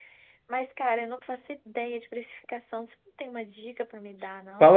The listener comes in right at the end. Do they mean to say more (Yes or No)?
Yes